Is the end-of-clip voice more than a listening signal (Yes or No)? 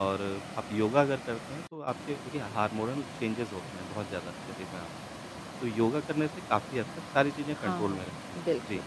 Yes